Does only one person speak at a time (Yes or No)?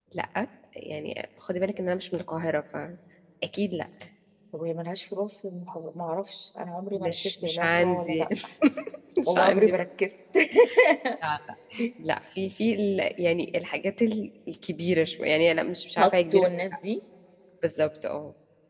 No